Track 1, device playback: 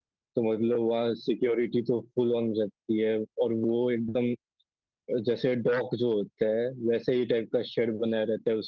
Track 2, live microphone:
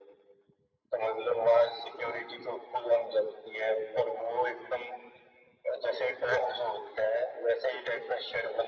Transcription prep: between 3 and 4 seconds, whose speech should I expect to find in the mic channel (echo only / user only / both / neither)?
echo only